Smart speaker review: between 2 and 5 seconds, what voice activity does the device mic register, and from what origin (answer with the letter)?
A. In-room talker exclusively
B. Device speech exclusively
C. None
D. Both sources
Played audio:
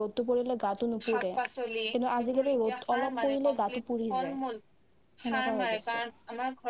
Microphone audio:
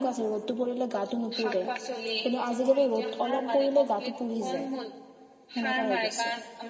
B